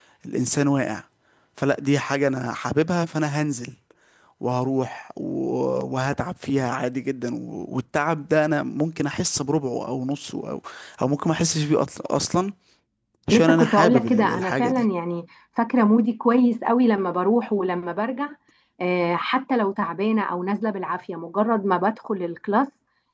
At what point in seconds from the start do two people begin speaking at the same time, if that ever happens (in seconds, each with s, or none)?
13.3 s